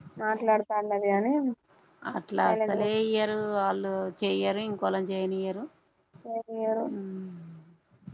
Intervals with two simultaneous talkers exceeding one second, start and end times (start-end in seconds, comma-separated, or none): none